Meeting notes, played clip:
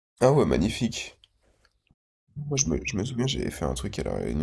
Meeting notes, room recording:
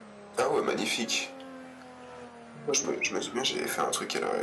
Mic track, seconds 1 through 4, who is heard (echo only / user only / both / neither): echo only